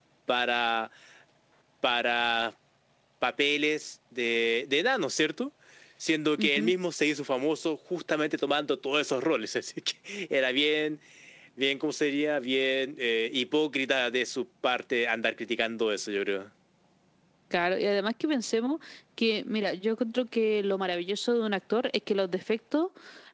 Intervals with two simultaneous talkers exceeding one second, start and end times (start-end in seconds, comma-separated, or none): none